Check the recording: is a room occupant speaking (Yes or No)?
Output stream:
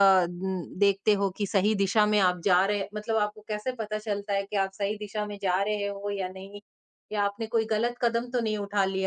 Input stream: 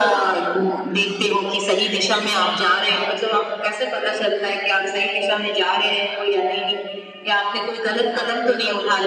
Yes